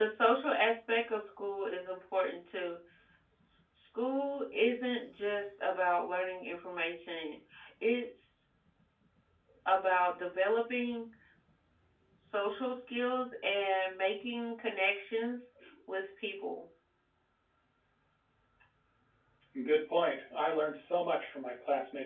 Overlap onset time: none

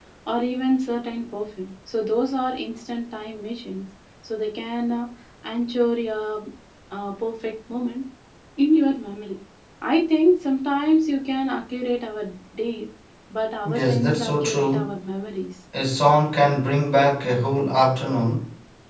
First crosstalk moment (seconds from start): 14 s

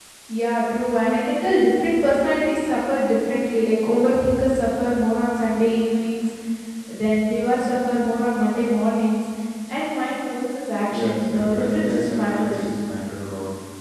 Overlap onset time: 11 s

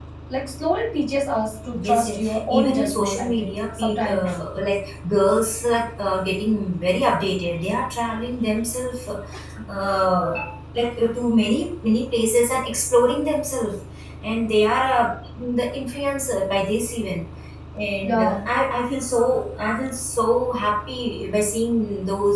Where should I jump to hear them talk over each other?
2 s

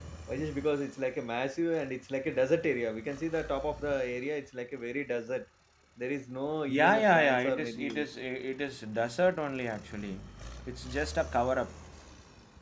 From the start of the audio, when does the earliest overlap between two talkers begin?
7 s

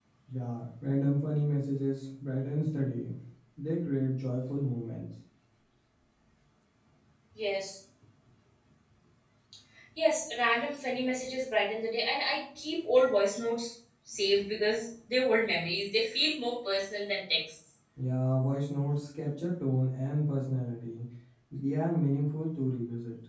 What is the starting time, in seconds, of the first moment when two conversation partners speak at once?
none

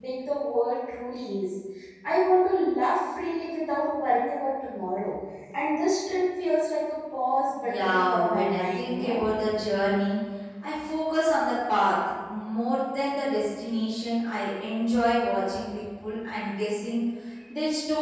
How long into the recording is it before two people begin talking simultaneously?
8 s

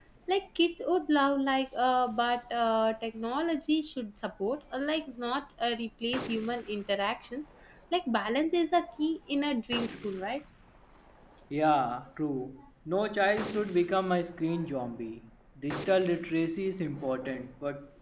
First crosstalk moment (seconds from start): none

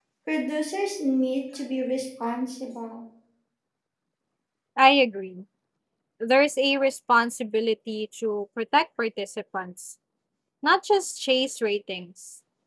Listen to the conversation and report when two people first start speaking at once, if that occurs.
none

